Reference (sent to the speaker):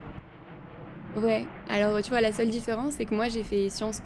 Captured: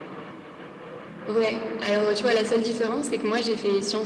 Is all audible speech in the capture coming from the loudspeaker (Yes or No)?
Yes